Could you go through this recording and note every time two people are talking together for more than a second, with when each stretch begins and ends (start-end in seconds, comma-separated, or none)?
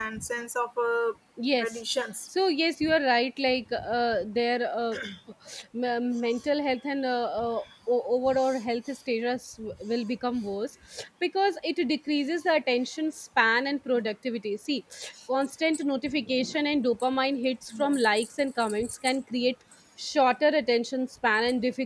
none